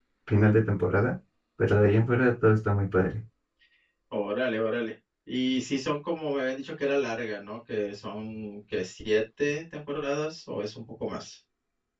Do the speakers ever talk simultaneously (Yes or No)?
No